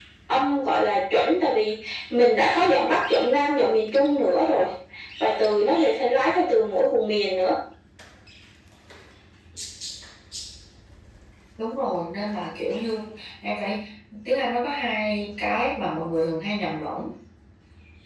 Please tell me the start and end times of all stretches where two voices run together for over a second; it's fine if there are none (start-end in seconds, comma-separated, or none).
none